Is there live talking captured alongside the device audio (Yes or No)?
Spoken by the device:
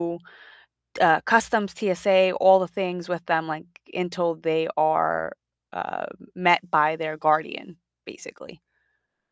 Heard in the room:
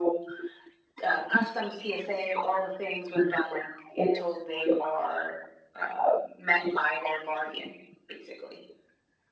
No